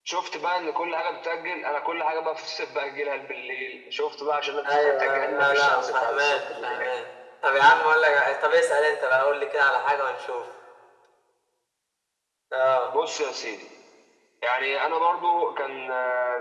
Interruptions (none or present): present